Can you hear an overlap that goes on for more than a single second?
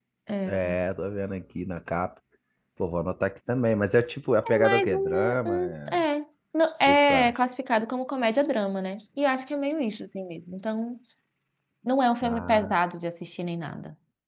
Yes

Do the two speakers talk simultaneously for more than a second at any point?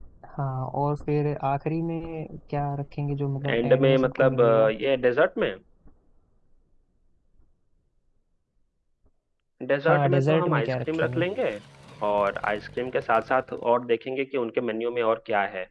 Yes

